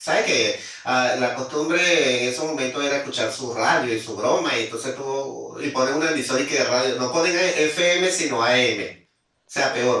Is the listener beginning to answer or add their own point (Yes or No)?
No